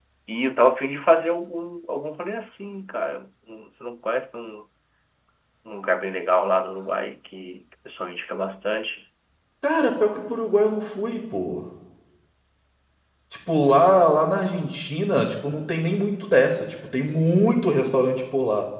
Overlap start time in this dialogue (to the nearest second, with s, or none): none